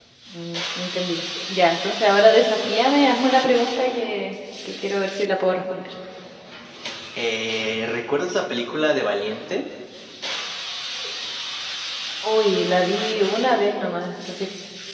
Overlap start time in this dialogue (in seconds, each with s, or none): none